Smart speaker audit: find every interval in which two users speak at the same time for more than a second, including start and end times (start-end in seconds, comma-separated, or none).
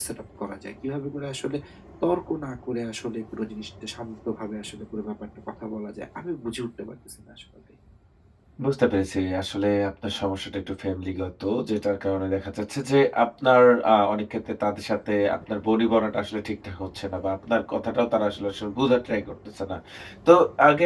none